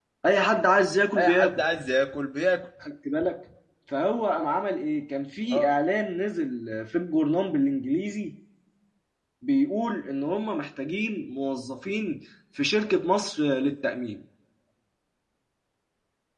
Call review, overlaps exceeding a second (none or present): none